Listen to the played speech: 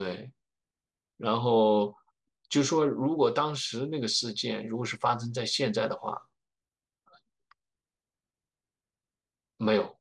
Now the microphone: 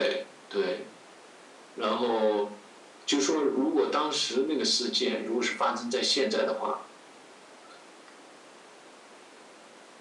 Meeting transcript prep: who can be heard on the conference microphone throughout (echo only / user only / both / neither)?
echo only